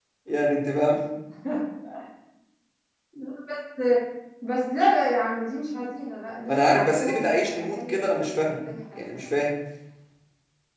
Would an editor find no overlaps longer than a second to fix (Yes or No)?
No